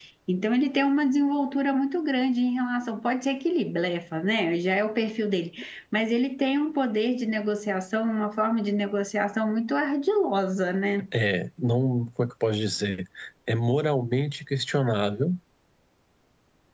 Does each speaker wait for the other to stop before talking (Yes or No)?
Yes